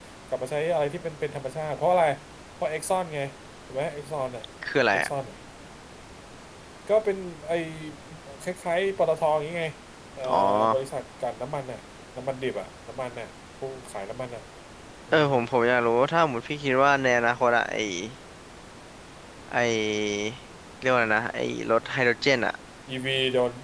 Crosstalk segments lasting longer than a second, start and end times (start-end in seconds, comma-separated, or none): none